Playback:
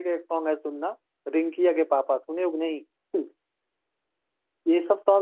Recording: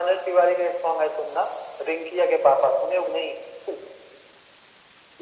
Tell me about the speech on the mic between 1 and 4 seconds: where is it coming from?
echo only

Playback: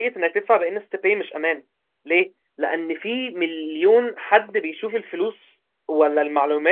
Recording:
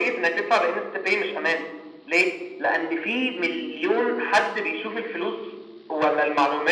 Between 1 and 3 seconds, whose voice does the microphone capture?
echo only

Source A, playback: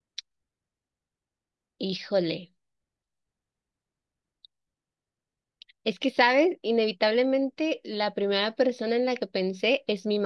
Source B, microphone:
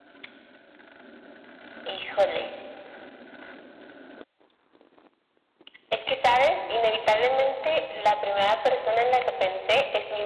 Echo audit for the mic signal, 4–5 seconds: neither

